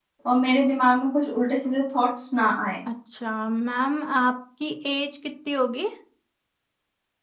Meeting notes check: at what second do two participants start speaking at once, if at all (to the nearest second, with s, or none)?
none